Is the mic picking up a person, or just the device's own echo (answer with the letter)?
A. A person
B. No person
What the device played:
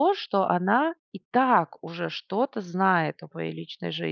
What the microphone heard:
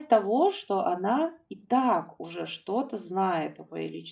B